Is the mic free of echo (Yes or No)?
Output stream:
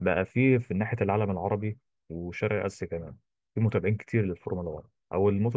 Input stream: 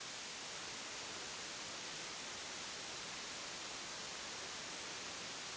Yes